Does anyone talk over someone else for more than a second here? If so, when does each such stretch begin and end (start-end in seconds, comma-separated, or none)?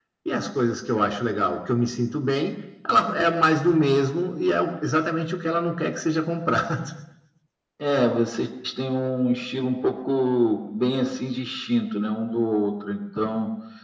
none